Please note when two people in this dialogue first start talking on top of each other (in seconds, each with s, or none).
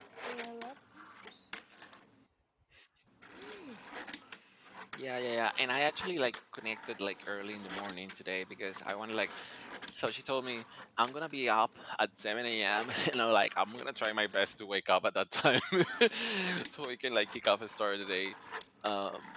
none